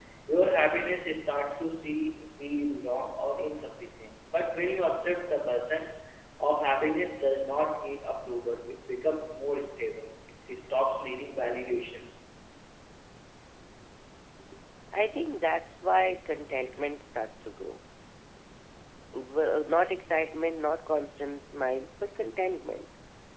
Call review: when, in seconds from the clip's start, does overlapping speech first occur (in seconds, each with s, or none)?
none